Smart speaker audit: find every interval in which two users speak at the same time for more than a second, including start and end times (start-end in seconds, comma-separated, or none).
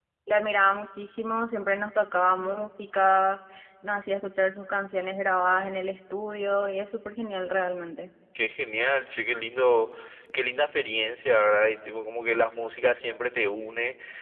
none